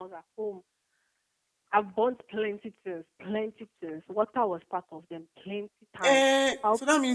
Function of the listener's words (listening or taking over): taking over